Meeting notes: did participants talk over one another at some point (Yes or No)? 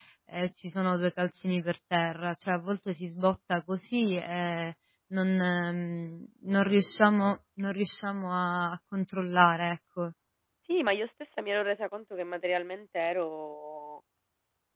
No